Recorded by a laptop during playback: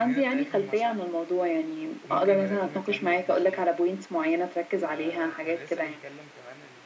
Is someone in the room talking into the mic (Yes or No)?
Yes